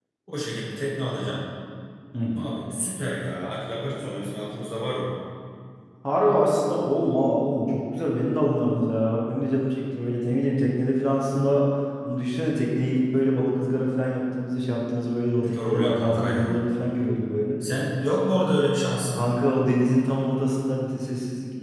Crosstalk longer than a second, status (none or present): present